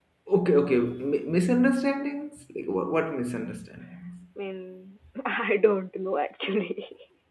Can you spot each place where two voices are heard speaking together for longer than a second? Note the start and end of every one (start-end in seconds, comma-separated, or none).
none